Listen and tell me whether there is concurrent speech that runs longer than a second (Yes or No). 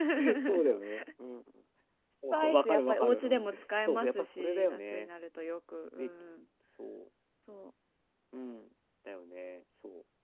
Yes